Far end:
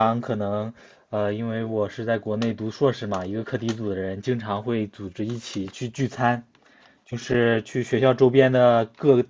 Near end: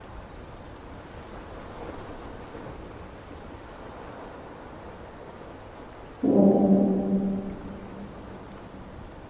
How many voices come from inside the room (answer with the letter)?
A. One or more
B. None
A